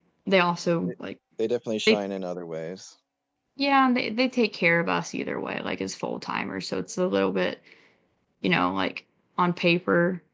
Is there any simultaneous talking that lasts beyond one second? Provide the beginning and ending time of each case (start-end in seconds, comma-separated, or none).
none